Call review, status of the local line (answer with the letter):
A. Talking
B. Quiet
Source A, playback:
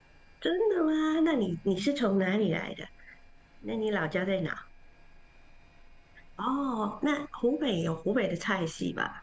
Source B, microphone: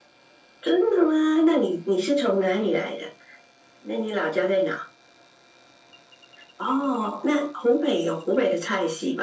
B